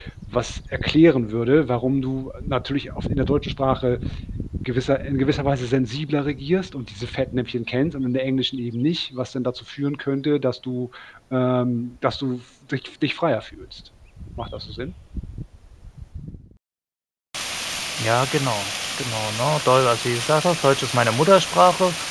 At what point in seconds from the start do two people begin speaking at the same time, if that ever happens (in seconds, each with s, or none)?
none